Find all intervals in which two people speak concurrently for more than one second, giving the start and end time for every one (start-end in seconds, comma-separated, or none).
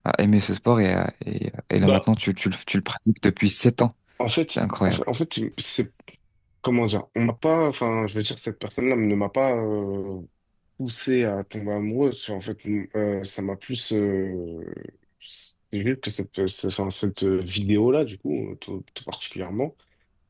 none